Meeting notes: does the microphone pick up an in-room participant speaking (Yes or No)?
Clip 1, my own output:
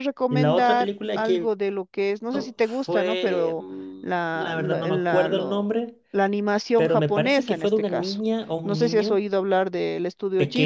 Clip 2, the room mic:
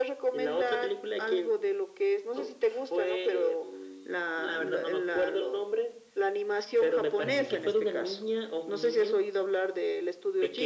Yes